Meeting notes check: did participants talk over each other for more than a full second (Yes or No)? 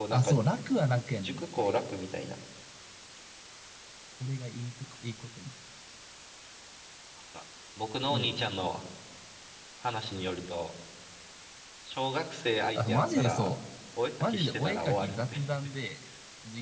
Yes